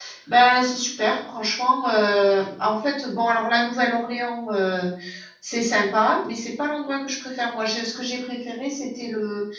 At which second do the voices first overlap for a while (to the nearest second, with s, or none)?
none